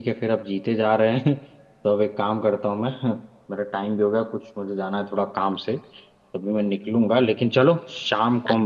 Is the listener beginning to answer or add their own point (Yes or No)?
No